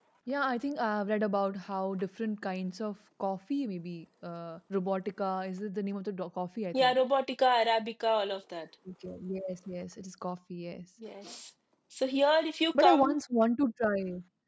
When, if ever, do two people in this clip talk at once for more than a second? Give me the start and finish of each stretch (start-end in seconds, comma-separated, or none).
none